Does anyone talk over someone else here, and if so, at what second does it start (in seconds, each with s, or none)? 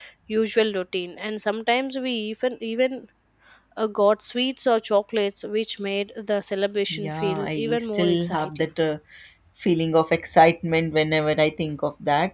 6.9 s